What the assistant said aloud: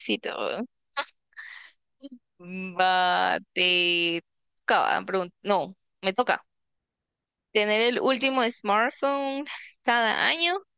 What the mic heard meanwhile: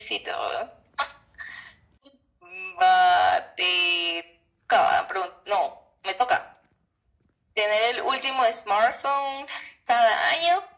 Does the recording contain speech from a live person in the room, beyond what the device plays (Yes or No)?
No